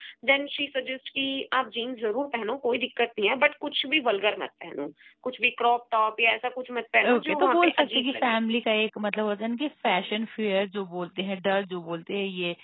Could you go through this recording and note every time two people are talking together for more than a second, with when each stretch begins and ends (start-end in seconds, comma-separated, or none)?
7.1-8.4